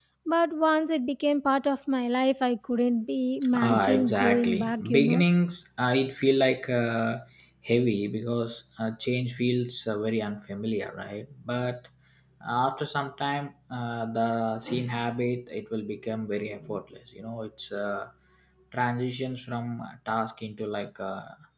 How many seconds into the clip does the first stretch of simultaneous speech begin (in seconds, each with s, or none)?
3.4 s